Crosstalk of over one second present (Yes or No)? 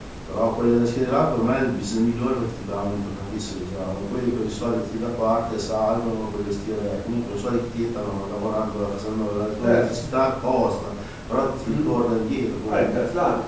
No